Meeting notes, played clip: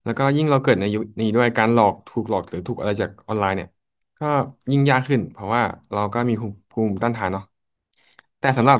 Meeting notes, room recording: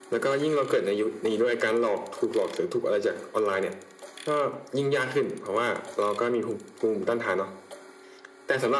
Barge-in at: none

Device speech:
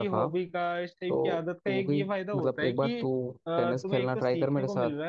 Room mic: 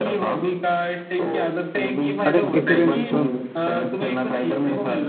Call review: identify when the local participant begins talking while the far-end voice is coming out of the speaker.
2.3 s

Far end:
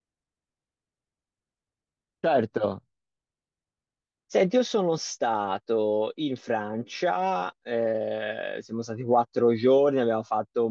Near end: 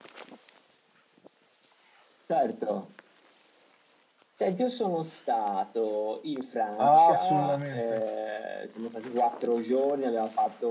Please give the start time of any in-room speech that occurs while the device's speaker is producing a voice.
6.8 s

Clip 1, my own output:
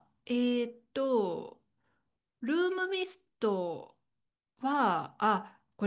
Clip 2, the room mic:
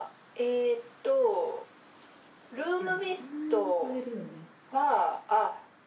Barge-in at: 2.8 s

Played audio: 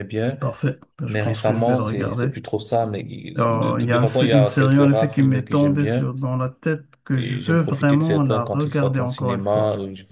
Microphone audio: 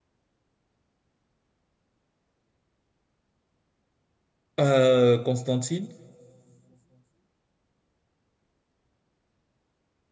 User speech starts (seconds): 4.6 s

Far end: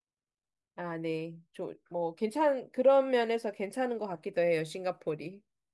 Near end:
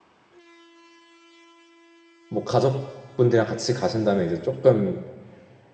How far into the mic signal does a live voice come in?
2.3 s

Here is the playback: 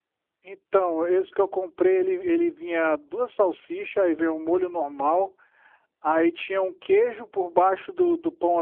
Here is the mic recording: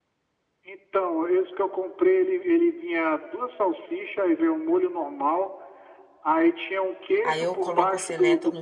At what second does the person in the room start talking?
7.2 s

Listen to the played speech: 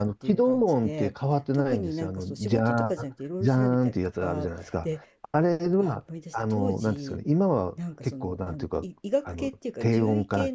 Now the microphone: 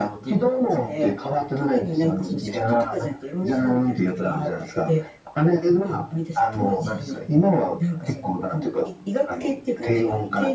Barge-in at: none

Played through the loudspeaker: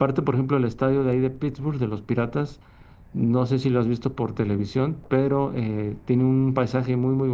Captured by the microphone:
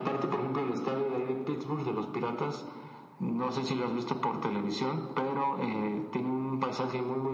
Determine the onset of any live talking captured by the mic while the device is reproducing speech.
none

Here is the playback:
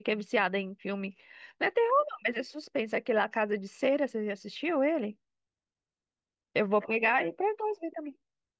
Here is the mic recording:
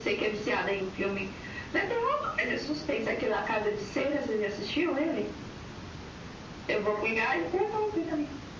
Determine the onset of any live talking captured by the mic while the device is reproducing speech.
none

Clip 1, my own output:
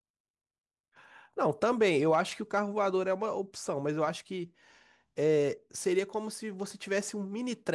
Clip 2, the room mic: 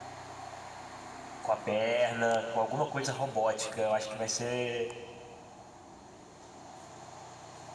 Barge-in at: 1.4 s

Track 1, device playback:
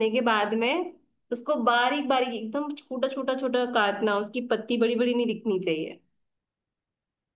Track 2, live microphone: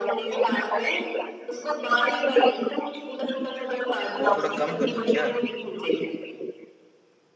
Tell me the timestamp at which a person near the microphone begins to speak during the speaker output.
4.2 s

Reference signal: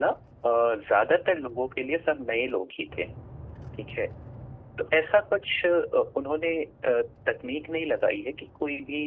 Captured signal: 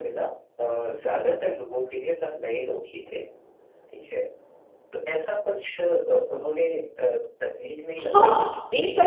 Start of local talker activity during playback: 8.0 s

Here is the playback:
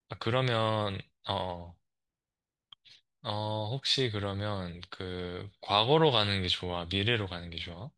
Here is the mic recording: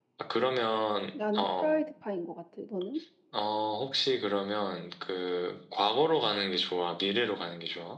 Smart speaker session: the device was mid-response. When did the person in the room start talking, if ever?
1.1 s

